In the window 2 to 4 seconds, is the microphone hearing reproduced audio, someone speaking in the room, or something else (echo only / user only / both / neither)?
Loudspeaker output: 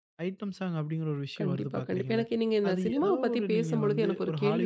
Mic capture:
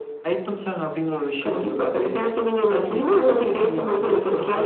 echo only